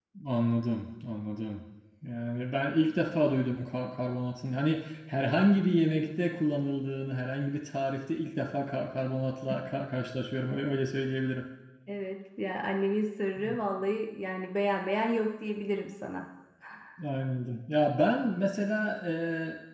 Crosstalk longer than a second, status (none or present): none